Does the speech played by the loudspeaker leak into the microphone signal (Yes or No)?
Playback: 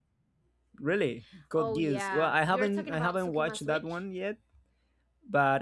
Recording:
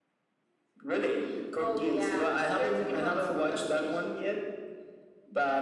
Yes